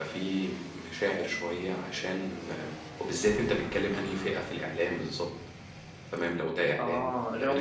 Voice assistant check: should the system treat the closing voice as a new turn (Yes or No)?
Yes